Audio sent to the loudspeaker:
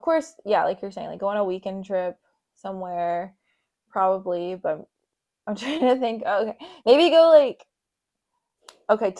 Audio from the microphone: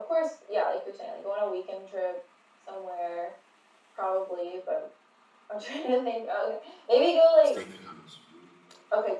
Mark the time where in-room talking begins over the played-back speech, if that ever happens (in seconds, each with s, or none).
7.5 s